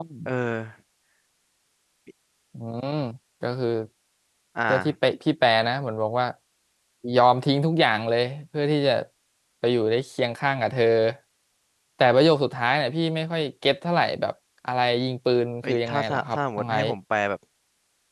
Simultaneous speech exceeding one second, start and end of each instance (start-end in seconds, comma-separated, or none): 15.6-16.9